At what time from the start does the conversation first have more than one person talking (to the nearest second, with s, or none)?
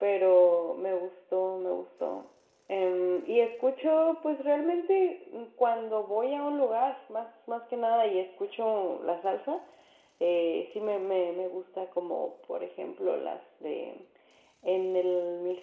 none